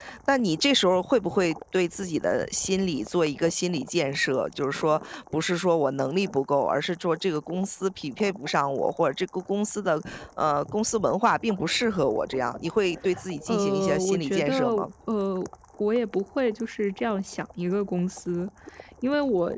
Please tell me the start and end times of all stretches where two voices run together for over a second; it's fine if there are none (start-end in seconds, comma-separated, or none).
13.5-14.7